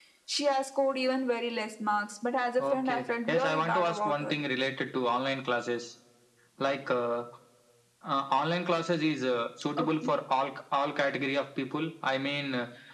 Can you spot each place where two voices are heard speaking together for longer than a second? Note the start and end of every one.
2.6-4.3

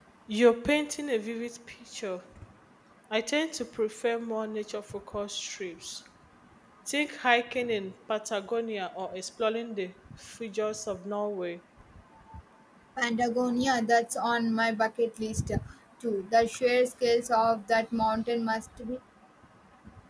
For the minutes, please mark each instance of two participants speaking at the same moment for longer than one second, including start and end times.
none

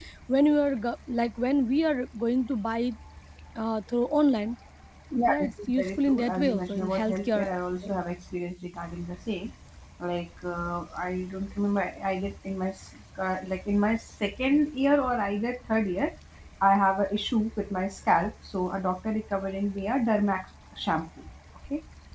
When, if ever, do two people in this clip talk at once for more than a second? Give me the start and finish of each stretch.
5.3-7.4

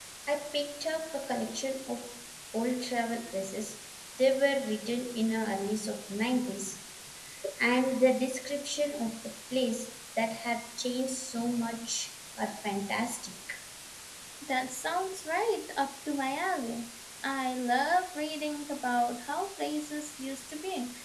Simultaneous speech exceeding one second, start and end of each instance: none

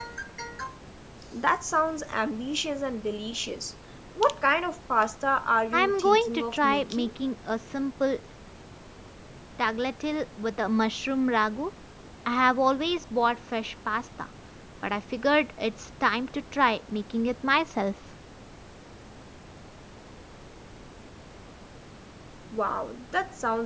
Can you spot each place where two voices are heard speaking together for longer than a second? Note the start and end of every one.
5.7-7.1

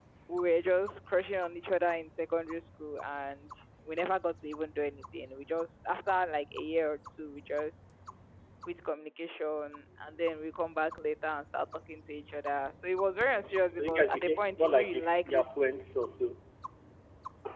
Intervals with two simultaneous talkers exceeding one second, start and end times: 13.8-15.5

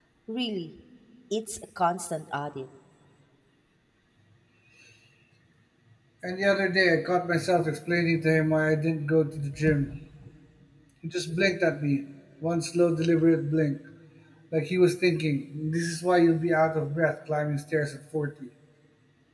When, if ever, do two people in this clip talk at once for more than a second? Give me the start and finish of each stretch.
none

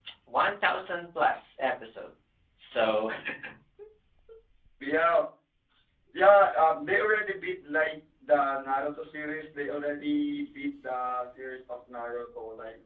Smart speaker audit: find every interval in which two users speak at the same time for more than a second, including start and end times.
none

